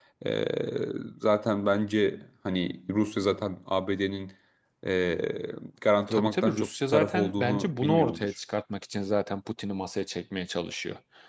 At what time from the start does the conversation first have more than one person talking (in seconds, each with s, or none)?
6.1 s